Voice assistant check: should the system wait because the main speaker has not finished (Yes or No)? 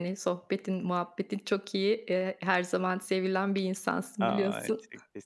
No